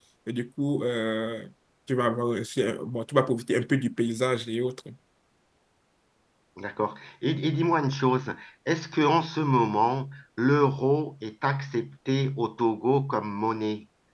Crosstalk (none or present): none